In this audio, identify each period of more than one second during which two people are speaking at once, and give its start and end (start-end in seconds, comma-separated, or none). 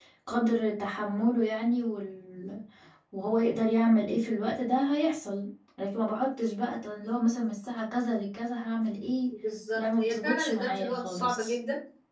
9.8-11.6